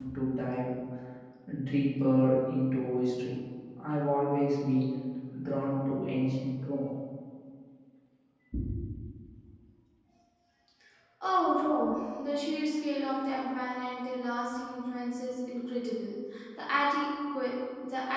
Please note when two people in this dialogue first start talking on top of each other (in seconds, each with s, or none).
none